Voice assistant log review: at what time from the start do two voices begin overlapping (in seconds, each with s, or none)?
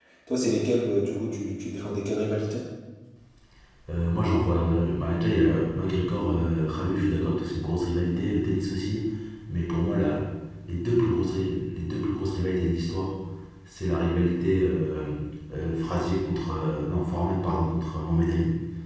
none